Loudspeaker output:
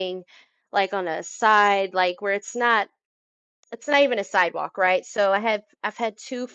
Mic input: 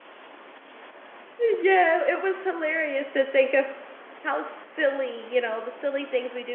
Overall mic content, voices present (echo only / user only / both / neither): user only